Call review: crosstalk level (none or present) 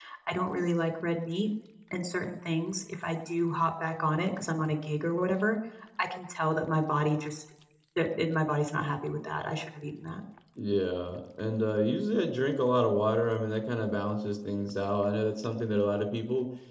none